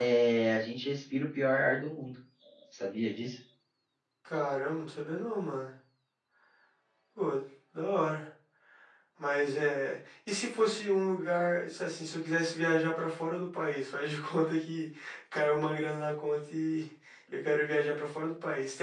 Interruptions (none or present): none